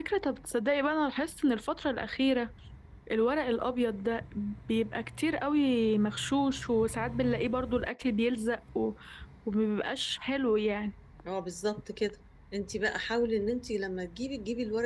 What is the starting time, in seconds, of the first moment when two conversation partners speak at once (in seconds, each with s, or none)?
none